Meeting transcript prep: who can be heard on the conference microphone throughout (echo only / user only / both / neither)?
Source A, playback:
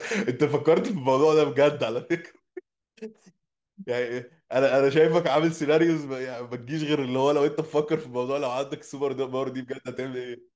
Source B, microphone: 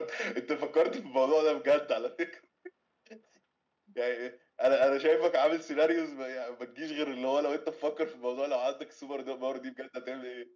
echo only